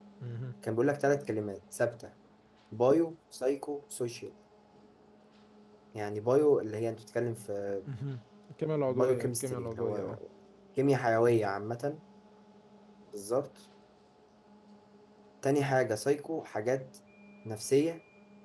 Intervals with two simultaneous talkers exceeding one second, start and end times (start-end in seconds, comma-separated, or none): 8.9-10.2